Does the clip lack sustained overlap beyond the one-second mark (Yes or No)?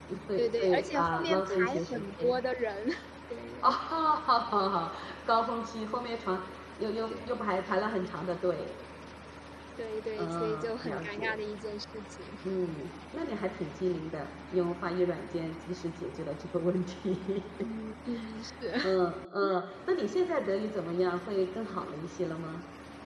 No